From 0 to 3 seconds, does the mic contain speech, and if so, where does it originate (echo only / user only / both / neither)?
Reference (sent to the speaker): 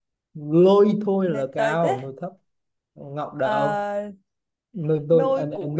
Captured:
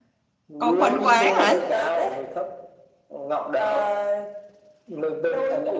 both